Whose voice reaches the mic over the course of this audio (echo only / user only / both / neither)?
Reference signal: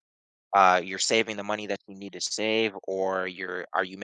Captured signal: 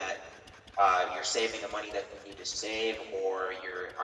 echo only